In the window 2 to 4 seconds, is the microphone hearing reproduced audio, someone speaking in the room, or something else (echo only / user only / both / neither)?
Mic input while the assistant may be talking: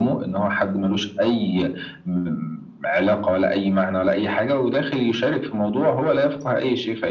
echo only